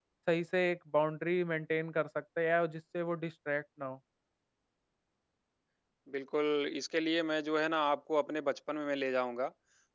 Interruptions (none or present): none